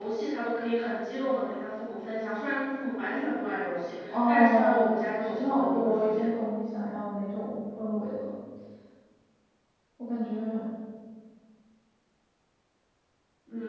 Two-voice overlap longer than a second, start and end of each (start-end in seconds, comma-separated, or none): 4.1-6.3